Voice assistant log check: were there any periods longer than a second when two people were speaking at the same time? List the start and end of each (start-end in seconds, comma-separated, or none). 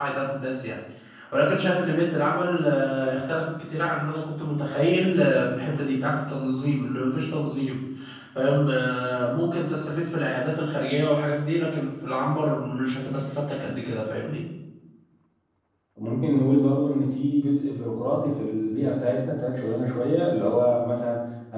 none